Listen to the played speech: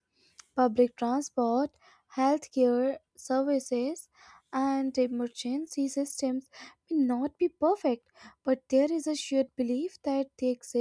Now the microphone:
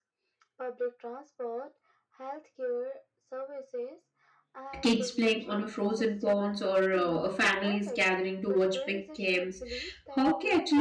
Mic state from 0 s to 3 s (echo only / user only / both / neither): echo only